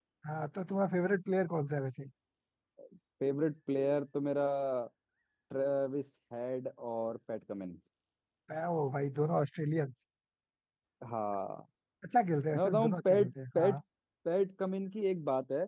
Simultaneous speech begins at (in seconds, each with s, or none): 12.5 s